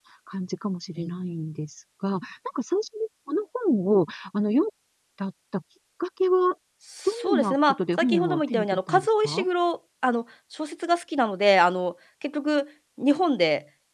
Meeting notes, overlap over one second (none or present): present